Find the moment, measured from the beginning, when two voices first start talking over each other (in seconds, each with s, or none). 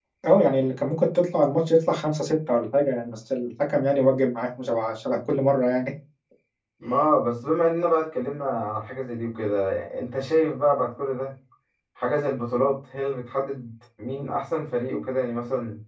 none